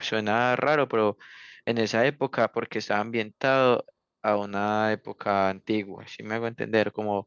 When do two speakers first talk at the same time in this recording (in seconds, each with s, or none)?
none